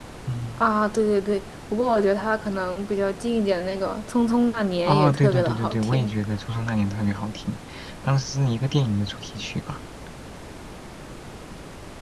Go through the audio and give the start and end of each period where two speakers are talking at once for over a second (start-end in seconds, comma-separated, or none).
4.8-6.1